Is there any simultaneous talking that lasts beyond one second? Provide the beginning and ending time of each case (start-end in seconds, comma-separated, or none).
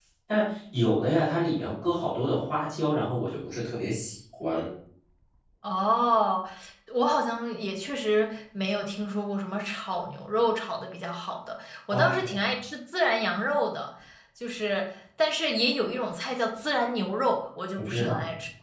none